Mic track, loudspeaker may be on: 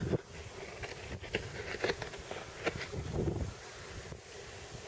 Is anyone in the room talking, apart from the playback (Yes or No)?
No